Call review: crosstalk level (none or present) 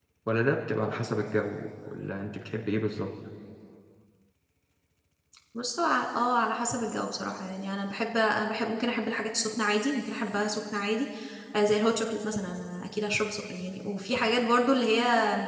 none